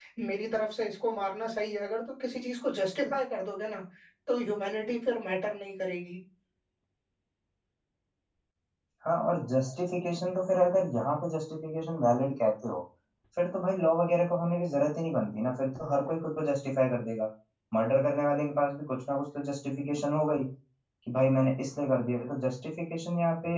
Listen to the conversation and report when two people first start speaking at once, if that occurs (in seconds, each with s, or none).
none